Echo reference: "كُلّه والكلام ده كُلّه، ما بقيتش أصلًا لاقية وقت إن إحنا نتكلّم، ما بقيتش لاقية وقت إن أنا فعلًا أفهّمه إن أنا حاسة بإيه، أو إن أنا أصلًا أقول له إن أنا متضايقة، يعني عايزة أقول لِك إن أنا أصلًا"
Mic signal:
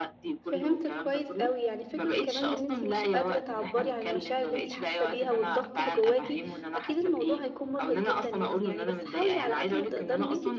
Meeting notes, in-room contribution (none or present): present